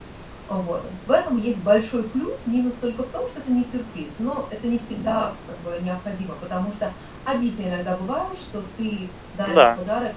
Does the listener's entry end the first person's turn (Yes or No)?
No